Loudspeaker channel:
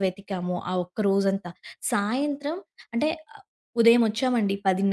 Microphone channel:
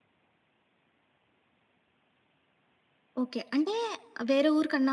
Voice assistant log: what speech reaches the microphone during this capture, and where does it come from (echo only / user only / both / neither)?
user only